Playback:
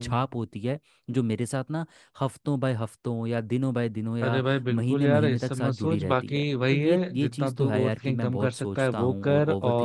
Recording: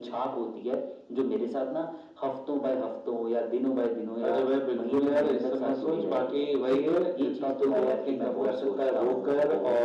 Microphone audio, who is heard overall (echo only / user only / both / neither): echo only